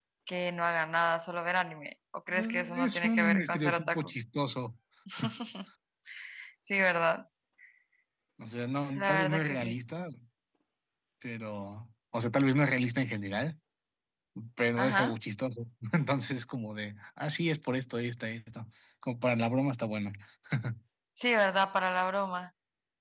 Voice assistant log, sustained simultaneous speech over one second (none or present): present